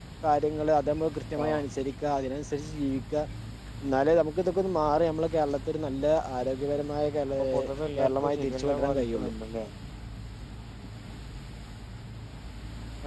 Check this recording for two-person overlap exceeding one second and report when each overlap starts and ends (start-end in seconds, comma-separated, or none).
8.0-9.3